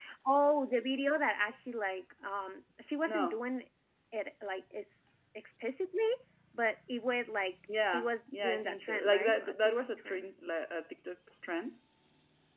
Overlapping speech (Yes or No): Yes